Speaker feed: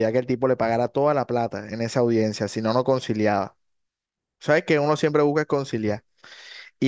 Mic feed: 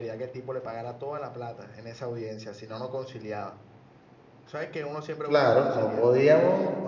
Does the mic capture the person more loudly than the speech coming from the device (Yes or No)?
Yes